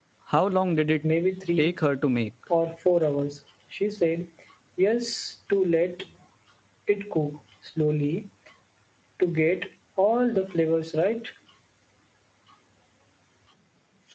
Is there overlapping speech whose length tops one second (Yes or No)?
No